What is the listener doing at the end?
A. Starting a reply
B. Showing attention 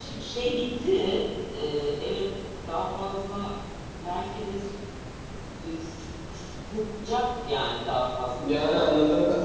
A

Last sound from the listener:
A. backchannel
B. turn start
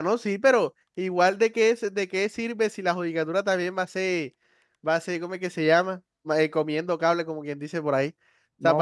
B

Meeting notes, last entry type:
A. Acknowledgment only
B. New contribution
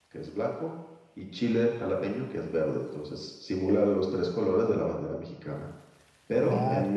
A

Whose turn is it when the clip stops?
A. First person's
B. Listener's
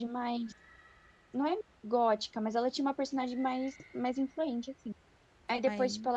A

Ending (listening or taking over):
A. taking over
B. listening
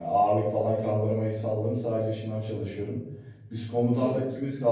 B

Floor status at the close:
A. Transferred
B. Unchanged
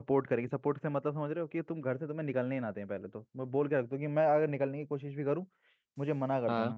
B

